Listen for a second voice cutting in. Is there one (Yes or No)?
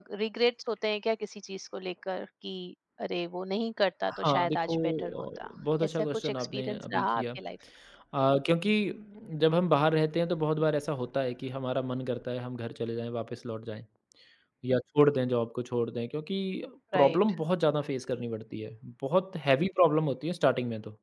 Yes